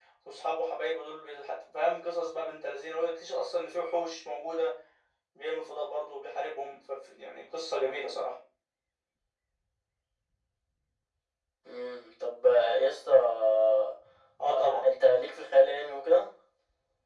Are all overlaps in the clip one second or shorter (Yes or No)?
Yes